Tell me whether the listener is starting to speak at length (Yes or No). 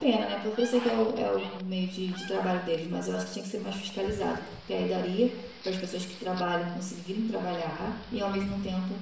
No